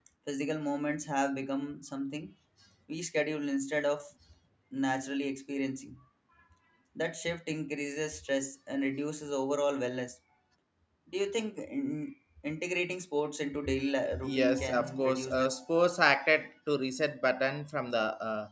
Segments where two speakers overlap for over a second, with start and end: 14.2-15.4

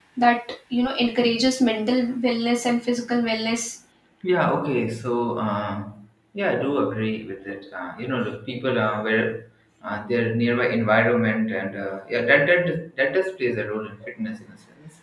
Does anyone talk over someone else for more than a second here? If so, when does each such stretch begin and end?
none

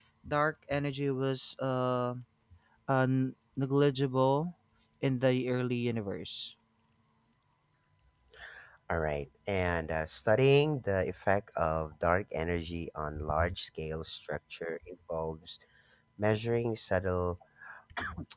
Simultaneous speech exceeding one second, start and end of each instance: none

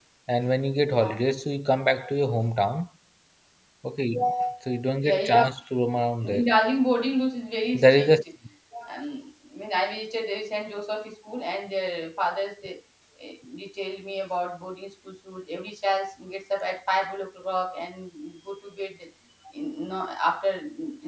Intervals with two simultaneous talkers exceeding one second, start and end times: none

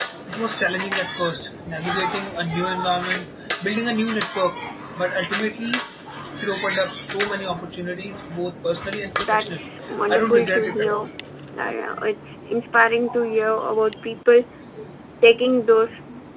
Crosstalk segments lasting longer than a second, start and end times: 9.2-11.1

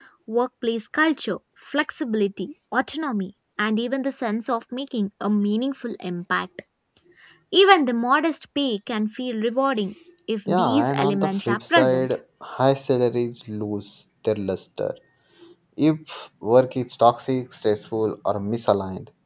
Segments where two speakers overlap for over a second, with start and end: 10.5-12.1

